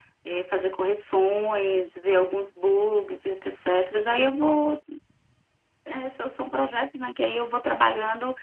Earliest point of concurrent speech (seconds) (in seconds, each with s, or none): none